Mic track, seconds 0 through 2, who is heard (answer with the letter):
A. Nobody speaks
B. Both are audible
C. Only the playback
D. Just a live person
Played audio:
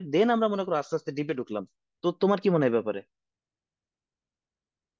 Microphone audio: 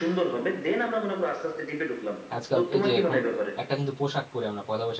C